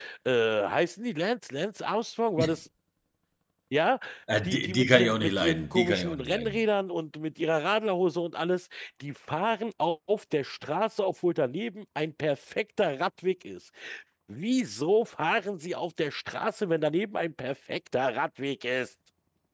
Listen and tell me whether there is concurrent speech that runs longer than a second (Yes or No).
Yes